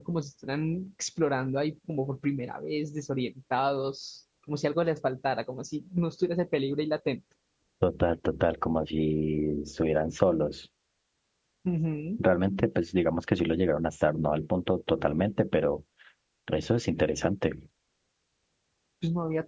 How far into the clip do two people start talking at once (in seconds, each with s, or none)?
none